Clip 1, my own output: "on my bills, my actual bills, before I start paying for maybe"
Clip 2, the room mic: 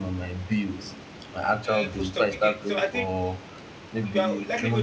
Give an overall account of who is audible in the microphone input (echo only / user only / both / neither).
both